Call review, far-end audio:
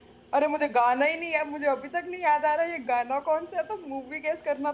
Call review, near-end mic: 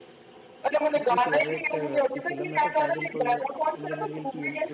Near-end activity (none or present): present